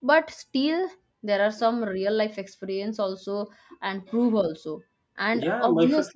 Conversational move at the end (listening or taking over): taking over